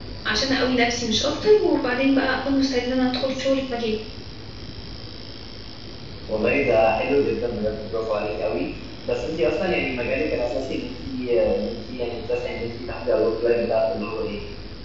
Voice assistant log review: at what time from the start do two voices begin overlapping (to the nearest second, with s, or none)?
none